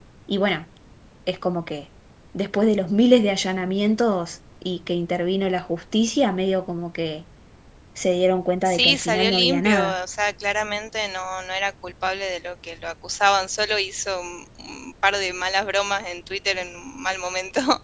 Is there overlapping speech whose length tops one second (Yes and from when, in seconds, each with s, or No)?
Yes, from 8.6 s